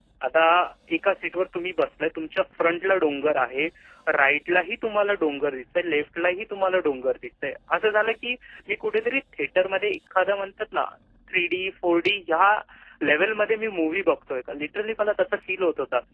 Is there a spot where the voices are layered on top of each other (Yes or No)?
No